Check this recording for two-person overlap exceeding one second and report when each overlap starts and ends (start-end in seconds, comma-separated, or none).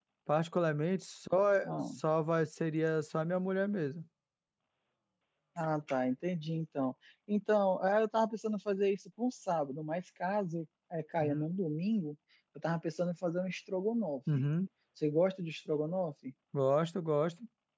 none